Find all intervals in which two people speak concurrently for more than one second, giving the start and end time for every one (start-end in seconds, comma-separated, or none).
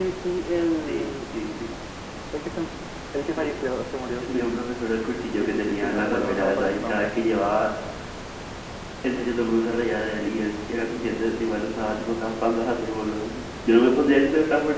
5.3-7.1